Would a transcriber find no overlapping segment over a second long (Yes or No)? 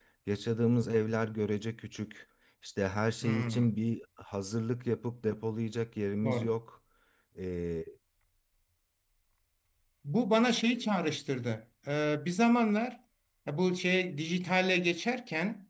Yes